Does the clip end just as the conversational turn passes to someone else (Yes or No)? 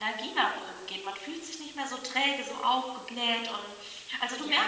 Yes